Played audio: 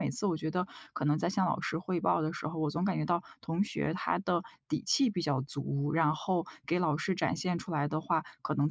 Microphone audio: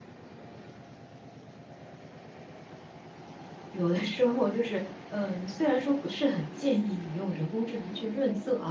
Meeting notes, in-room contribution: present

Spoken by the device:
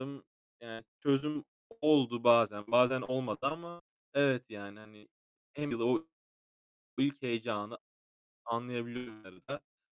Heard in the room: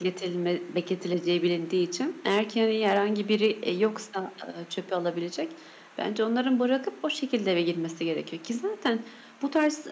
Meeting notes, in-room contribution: present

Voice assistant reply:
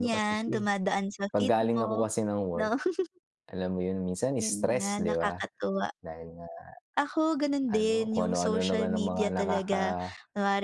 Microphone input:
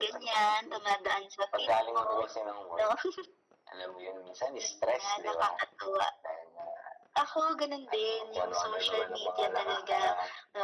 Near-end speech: none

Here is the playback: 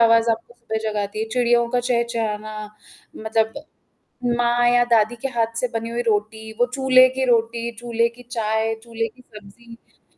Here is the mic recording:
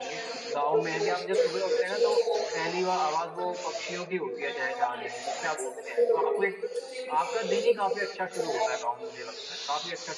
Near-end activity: present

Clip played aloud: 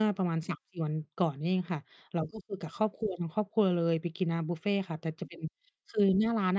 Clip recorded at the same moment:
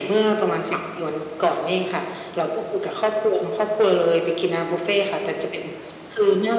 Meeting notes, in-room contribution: none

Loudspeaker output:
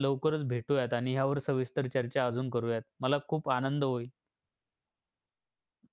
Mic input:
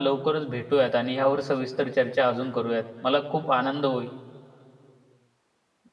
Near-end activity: none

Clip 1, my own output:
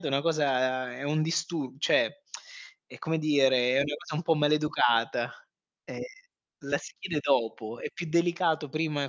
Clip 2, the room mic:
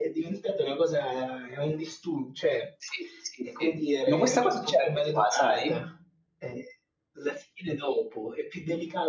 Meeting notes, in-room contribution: present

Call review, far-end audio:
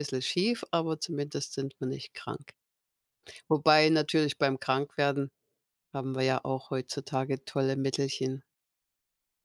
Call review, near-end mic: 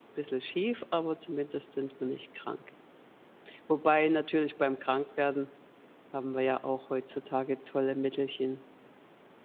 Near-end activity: none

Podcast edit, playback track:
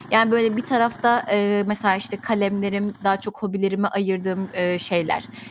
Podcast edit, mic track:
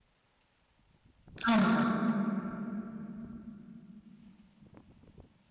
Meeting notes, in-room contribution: present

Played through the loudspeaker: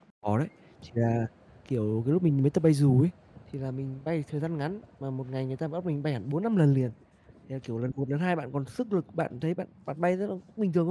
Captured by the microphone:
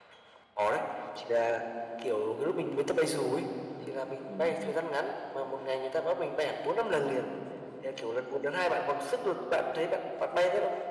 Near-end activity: present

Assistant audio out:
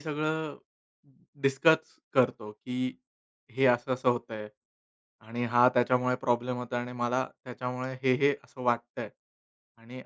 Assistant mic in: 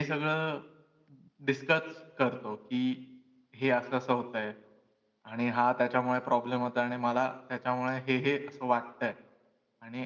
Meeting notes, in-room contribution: none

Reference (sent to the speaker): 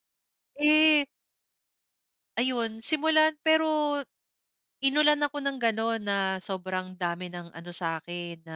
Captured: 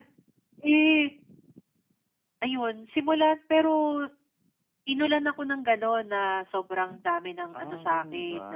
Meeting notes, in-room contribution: present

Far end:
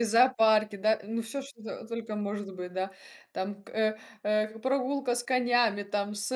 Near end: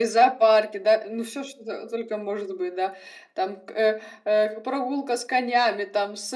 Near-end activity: none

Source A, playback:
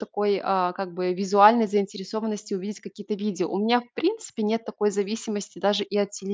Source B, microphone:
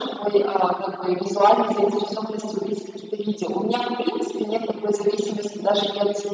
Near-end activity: none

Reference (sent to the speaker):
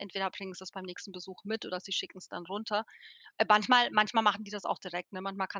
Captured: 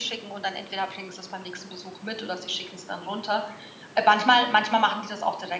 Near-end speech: none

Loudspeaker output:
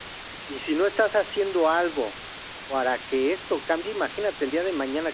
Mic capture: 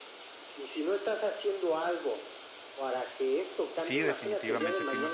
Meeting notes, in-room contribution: present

